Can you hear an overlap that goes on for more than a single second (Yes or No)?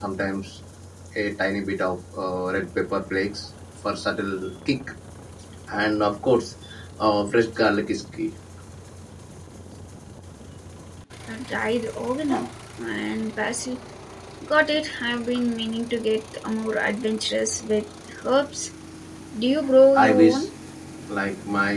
No